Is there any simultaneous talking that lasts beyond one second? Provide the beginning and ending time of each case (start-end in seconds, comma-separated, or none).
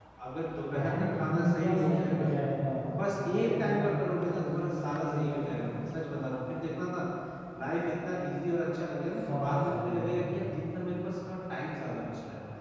0.8-2.3, 3.4-5.5, 9.2-10.5